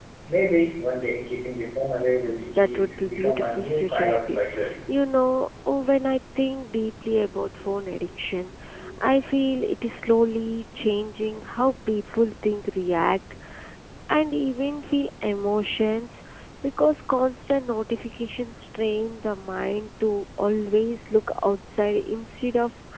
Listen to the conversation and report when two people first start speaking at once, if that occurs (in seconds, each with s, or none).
2.2 s